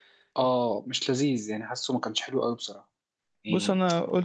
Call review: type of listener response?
taking over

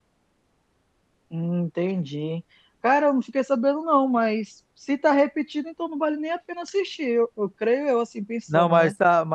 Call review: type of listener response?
taking over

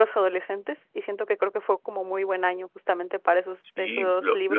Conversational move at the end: taking over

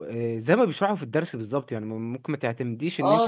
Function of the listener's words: taking over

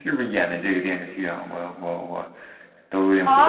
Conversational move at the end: taking over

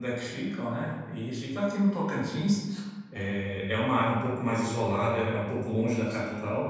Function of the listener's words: listening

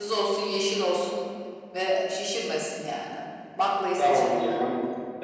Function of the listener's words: taking over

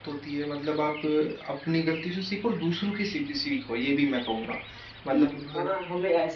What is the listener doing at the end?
taking over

